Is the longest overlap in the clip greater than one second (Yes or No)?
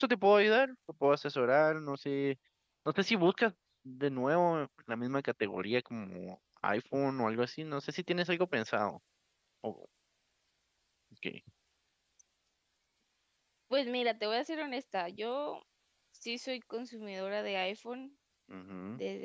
No